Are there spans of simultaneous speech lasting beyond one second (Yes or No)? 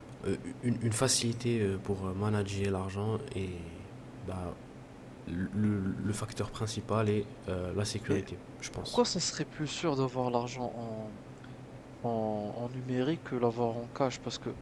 No